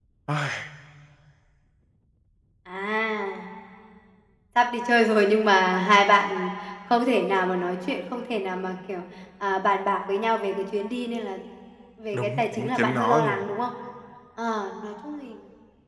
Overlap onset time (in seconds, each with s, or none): 12.1 s